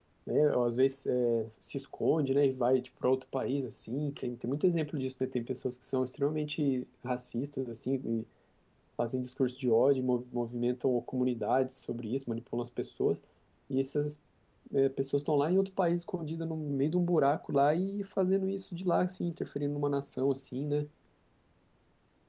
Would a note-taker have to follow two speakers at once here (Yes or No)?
No